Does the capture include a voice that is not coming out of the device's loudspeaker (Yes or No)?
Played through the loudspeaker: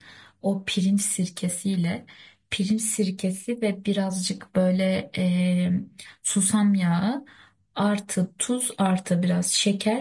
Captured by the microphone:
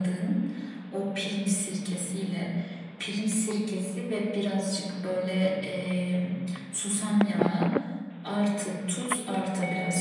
No